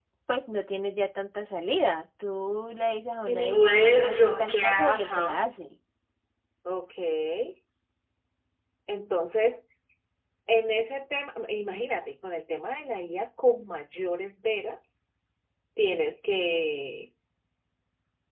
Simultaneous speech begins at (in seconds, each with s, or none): 3.3 s